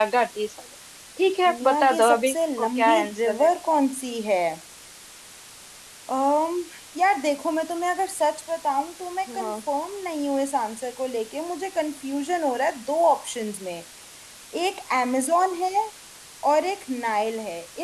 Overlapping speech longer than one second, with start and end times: 1.4-3.5

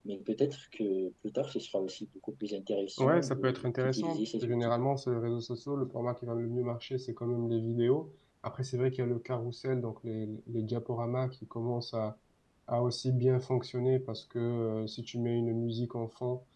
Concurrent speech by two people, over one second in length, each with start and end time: 3.0-4.5

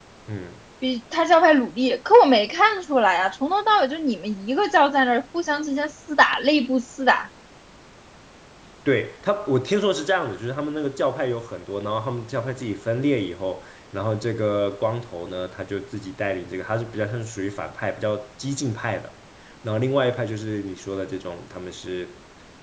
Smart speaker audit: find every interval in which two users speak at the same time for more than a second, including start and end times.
none

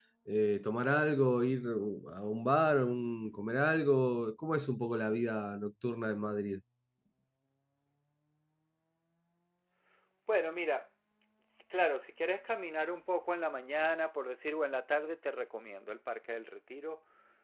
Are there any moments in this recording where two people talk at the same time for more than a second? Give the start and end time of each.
none

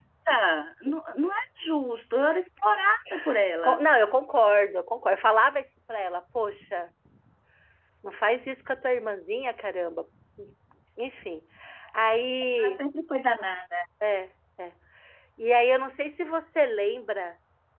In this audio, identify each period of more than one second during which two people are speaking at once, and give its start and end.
none

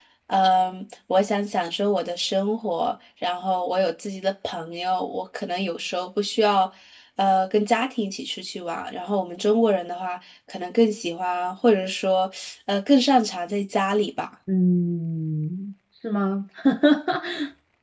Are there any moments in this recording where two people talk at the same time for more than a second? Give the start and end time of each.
none

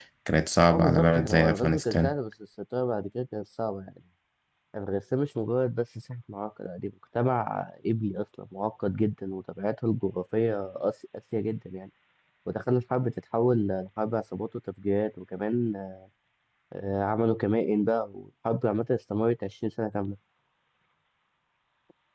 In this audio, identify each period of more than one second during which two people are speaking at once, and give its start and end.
0.7-2.1

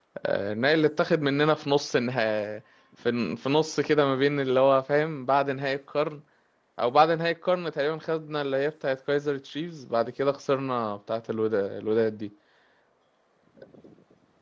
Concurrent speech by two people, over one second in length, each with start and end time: none

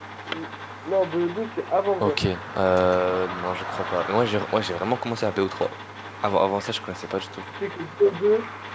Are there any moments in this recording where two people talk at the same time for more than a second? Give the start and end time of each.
none

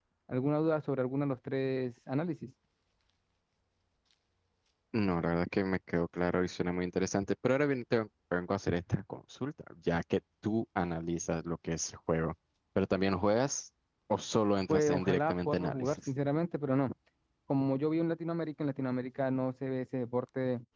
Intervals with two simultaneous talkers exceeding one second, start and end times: 14.7-16.1

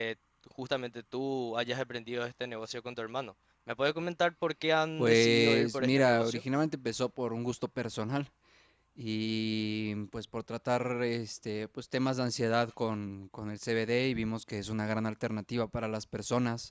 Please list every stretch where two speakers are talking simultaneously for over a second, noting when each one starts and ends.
5.0-6.4

